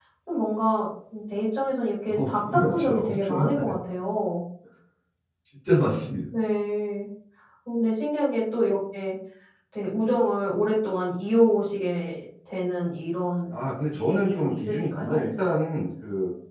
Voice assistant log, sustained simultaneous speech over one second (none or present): present